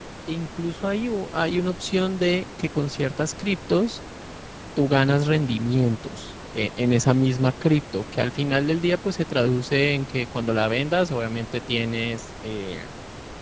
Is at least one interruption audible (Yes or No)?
No